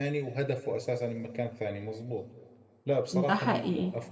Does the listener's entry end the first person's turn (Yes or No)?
No